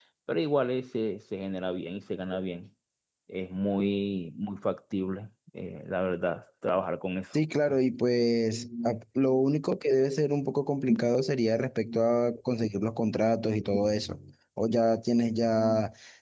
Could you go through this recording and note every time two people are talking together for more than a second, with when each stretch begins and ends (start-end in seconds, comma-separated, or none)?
none